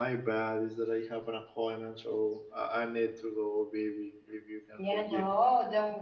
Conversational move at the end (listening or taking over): taking over